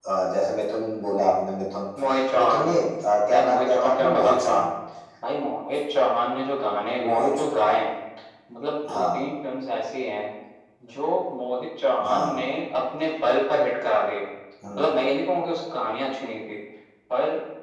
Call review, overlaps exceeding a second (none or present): present